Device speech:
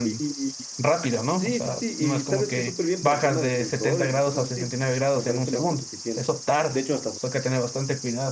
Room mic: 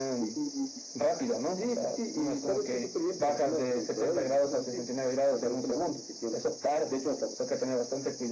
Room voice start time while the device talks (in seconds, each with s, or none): none